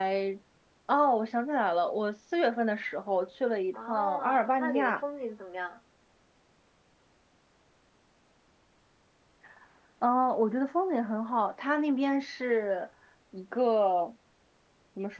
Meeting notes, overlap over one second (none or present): present